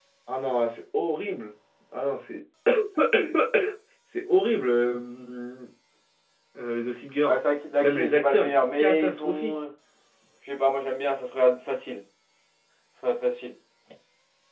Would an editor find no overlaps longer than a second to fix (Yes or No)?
No